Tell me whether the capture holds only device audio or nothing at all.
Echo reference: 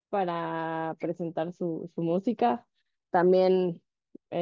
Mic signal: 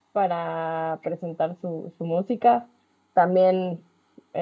Yes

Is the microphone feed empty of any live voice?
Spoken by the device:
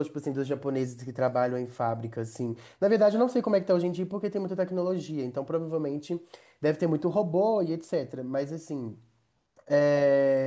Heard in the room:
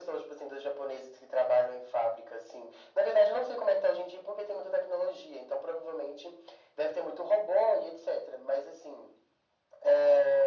Yes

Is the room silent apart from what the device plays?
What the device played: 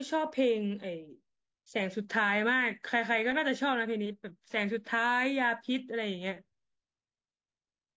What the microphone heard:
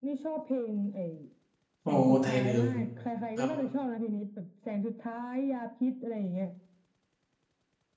No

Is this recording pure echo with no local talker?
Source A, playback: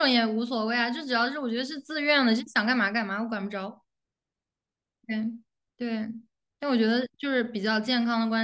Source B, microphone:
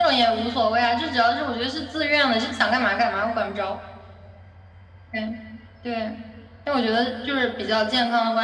Yes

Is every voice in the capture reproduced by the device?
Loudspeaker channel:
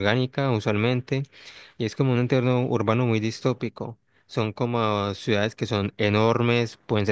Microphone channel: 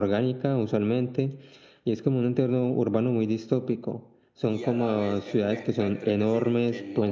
No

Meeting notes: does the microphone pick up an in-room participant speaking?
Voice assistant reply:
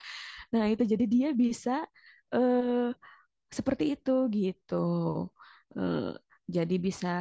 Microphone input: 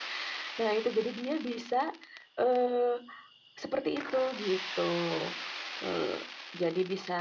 No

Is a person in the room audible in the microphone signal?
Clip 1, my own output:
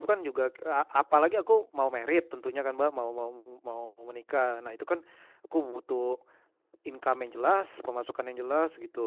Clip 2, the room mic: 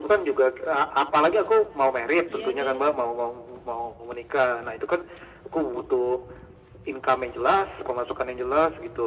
Yes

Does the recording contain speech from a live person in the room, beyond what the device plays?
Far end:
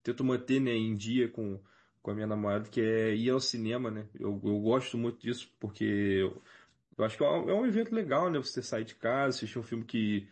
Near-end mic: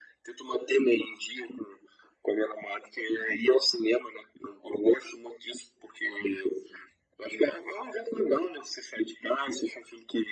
No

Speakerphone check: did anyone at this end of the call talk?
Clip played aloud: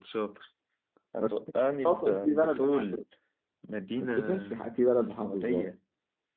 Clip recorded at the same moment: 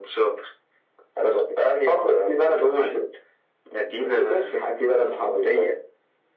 No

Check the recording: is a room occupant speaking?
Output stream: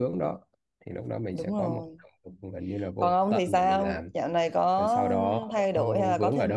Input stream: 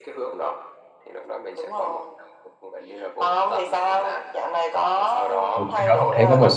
Yes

